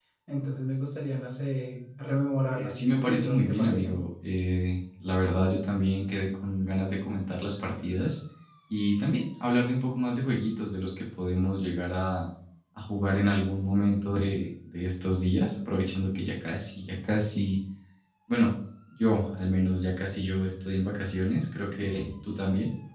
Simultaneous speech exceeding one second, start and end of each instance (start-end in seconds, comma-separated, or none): 2.5-4.0